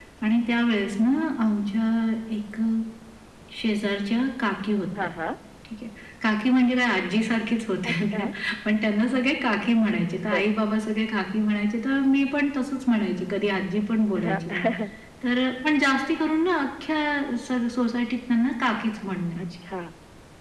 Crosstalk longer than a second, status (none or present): none